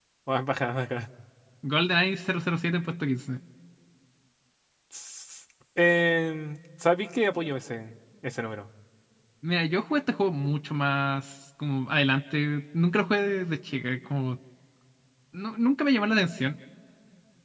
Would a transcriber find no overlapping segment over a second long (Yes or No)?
Yes